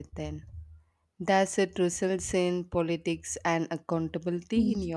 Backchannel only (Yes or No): No